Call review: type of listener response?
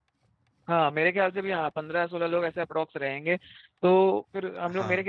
listening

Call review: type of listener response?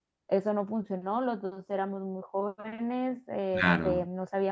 listening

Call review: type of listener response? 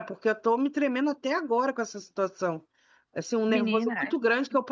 listening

